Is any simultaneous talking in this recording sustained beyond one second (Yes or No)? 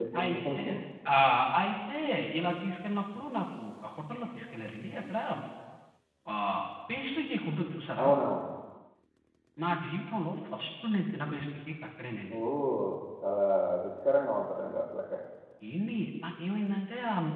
No